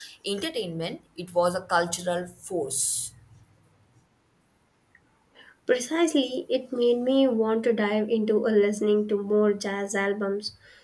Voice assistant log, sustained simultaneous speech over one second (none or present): none